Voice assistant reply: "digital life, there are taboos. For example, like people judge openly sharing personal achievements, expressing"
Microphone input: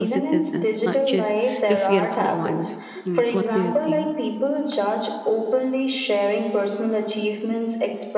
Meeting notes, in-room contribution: present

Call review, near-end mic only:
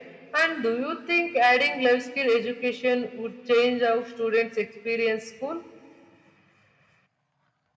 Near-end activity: none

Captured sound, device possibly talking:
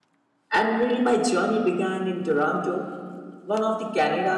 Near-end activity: present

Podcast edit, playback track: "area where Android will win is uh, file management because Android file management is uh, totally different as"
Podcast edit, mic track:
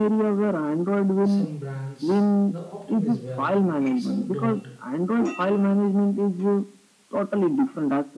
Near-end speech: present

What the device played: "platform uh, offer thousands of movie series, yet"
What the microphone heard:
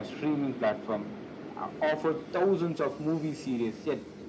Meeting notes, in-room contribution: none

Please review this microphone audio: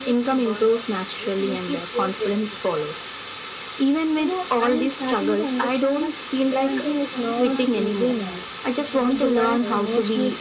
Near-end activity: present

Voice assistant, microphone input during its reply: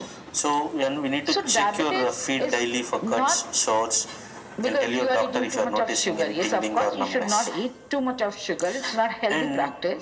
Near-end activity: none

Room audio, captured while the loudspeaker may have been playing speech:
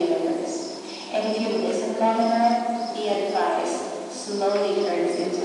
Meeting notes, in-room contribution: none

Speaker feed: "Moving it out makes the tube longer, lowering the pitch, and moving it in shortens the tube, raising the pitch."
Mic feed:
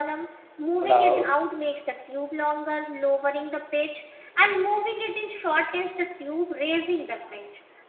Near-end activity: present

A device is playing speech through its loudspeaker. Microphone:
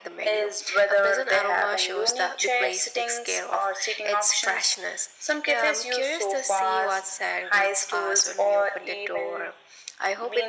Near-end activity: none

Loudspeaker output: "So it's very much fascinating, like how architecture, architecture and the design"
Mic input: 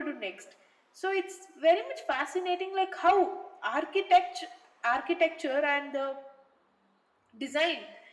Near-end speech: none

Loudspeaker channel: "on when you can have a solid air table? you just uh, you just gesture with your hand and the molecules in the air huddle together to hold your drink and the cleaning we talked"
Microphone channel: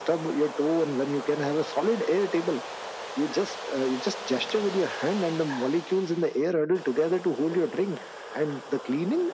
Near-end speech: none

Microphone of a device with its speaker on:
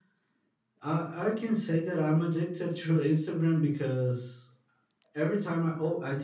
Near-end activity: none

